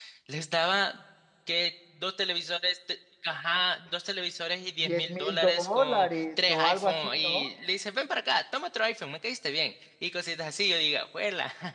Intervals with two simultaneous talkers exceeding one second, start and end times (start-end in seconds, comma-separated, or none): 4.8-7.5